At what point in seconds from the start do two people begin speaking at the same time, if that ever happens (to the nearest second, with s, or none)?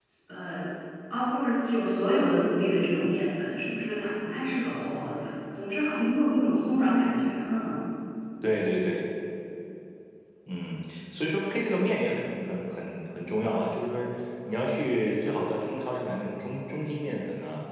none